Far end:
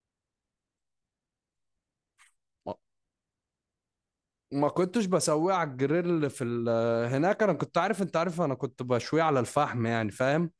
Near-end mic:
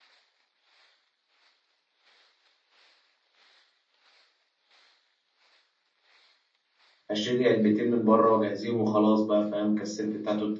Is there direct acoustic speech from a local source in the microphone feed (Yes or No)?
Yes